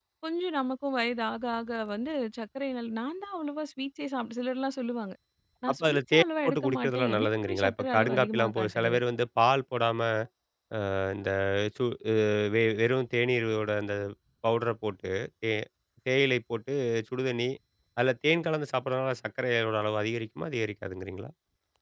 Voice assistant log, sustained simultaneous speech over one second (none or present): present